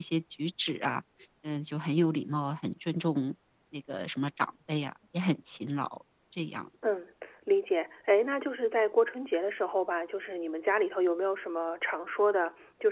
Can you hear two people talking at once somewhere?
No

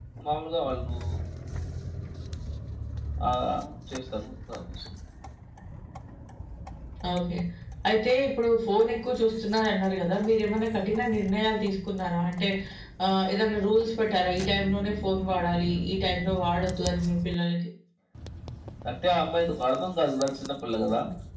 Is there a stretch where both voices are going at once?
No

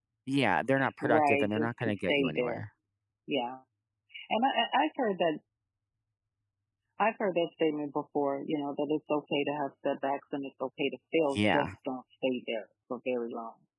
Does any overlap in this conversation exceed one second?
Yes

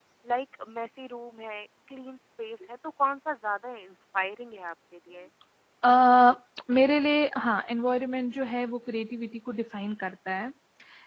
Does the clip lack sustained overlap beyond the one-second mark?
Yes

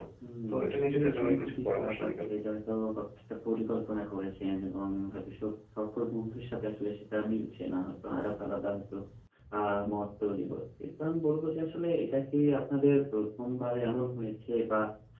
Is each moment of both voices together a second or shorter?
No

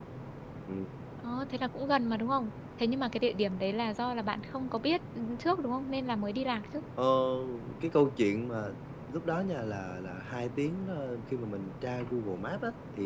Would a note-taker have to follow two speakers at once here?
No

